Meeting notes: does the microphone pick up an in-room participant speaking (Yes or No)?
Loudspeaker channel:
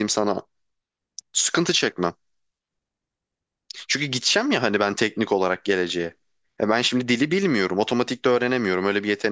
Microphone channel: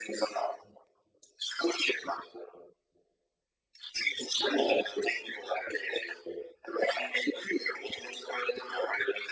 No